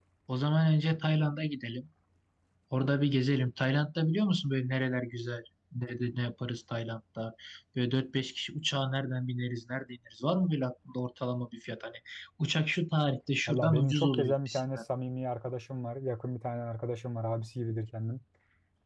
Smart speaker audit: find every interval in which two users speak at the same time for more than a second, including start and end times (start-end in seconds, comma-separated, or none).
13.5-14.8